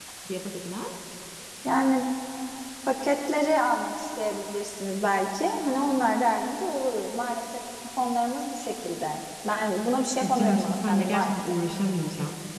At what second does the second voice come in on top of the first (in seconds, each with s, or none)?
10.2 s